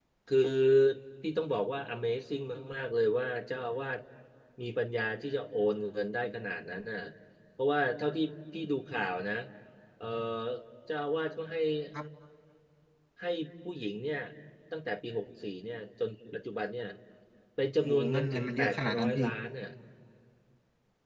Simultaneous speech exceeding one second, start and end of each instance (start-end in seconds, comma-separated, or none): 17.8-19.2